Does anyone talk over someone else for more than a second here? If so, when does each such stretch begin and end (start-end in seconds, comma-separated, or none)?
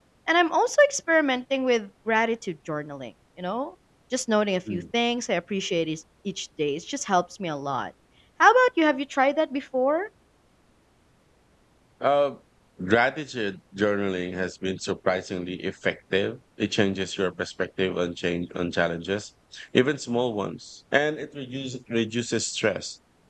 none